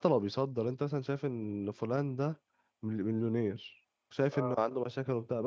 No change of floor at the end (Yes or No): Yes